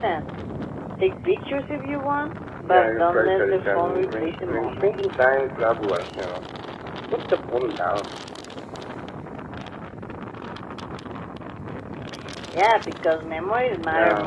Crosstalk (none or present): present